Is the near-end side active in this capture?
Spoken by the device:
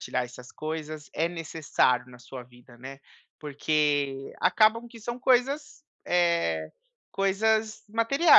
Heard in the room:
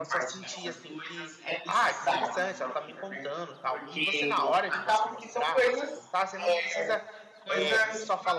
Yes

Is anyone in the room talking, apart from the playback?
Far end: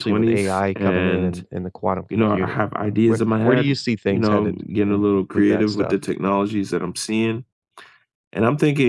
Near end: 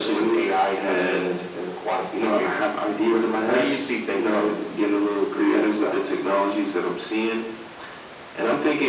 No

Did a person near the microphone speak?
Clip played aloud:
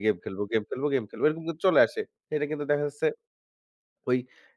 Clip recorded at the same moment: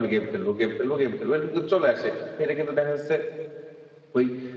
No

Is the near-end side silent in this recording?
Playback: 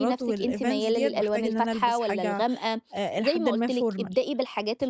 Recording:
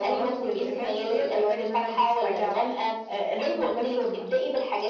Yes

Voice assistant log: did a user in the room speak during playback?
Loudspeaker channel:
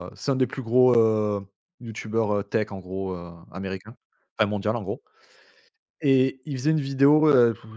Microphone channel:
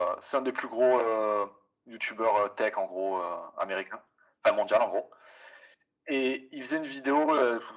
No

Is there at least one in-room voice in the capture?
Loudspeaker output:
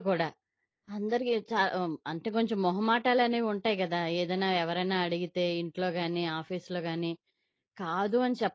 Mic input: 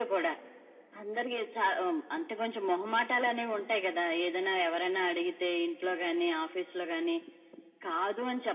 No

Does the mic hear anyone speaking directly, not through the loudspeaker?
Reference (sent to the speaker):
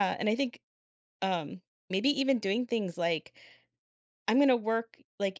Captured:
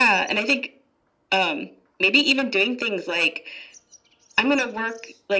No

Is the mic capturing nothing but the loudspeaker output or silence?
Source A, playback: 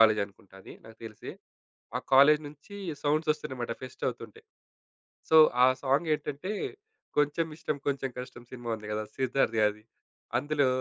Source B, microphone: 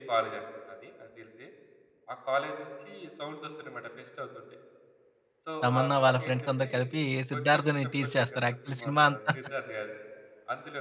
No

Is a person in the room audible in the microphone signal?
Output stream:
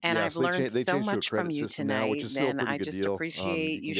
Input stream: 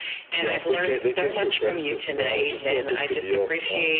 No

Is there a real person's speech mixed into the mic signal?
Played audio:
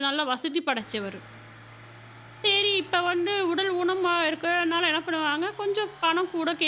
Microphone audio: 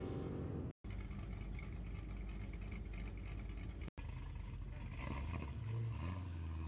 No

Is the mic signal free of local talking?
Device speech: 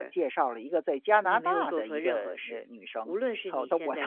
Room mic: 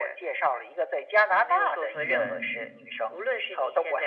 No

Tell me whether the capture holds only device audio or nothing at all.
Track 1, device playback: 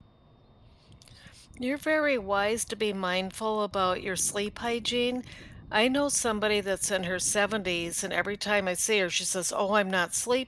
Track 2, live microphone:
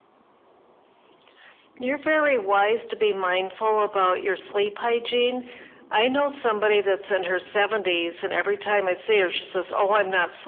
Yes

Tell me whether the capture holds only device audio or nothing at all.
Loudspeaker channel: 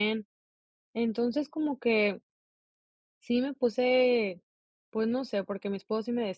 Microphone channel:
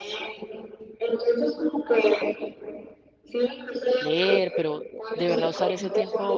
No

